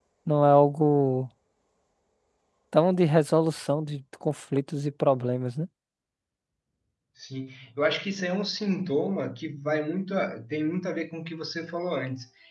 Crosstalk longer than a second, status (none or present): none